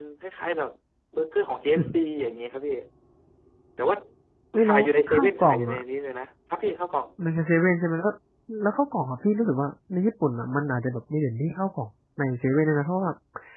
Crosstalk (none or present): present